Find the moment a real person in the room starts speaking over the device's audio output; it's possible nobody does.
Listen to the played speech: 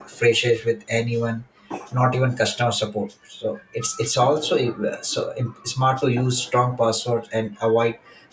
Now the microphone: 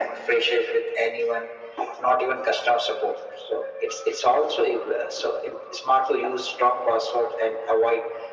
none

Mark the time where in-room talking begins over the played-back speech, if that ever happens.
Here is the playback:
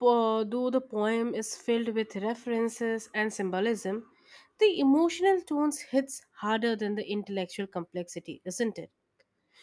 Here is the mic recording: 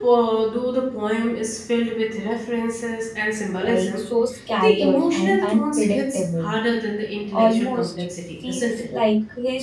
3.6 s

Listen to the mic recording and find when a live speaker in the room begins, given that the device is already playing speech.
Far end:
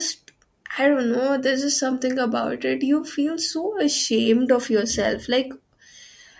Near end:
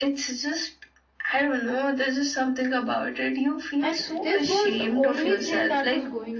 3.8 s

